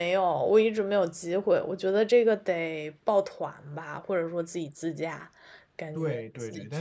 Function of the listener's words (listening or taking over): taking over